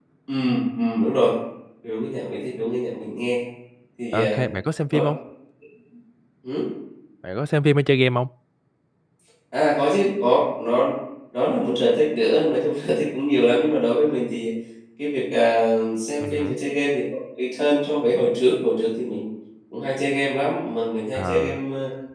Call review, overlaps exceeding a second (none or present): none